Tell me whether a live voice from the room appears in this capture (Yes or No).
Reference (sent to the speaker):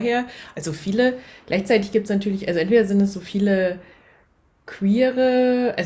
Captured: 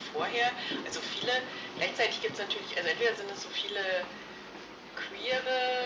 No